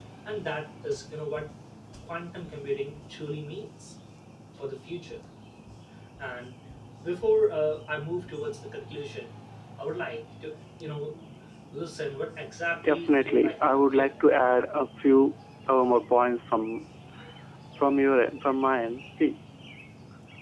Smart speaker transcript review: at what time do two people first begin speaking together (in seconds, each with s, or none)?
12.7 s